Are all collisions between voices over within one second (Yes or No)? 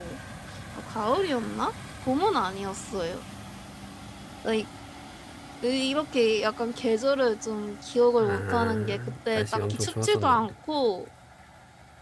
No